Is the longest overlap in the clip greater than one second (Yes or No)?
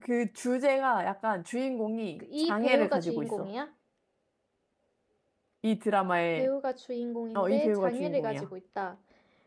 Yes